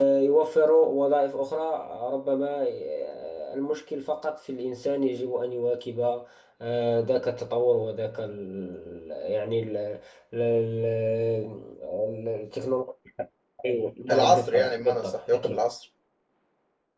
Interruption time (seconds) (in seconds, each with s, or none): 14.1 s